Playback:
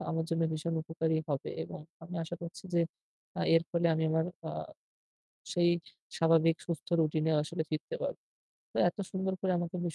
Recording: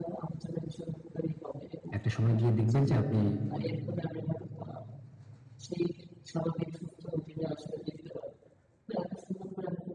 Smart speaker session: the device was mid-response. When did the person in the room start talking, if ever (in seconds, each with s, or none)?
2.0 s